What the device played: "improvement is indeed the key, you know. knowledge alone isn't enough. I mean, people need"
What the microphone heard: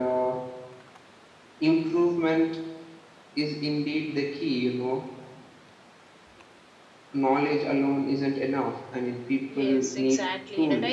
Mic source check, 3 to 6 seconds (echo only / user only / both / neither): echo only